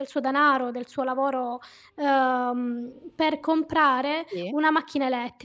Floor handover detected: No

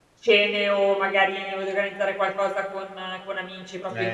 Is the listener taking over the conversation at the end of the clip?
Yes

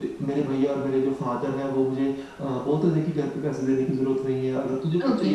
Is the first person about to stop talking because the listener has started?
No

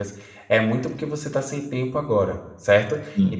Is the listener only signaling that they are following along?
Yes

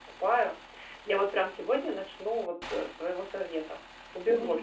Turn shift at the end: Yes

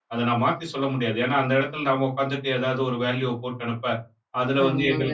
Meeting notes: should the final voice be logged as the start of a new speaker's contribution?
No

